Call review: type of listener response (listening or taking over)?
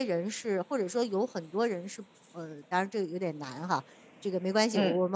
listening